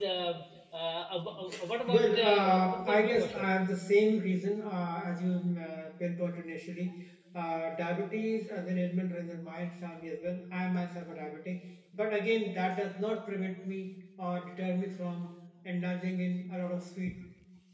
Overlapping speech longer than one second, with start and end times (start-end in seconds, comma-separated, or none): 1.9-3.5